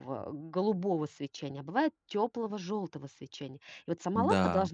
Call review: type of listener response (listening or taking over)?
listening